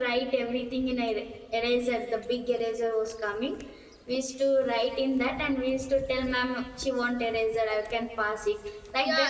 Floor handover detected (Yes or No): Yes